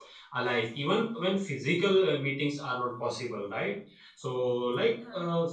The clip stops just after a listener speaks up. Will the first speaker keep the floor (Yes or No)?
Yes